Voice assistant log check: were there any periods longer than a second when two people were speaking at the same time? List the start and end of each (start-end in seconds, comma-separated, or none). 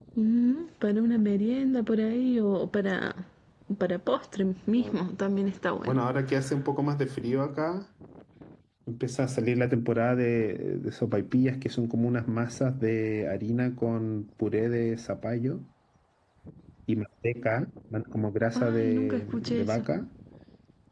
18.6-19.8